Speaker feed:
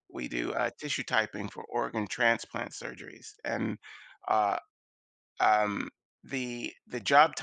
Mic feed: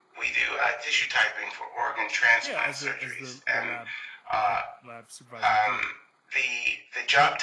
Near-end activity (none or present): present